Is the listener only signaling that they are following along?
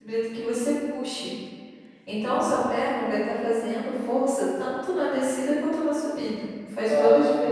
No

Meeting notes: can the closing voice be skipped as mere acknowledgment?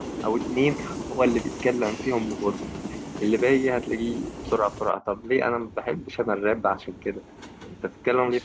No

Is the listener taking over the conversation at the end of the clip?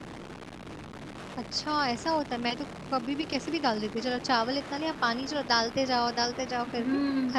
Yes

